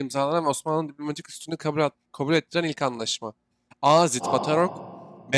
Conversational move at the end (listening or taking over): listening